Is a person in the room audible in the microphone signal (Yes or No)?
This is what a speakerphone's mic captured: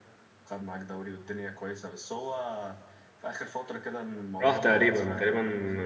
Yes